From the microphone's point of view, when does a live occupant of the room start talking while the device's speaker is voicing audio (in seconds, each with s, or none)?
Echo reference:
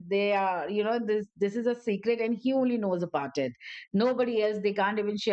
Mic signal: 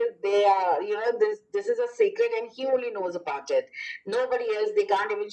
none